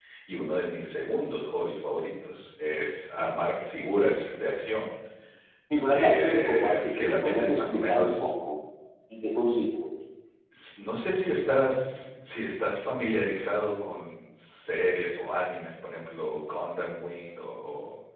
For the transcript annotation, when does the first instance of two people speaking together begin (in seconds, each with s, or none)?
5.9 s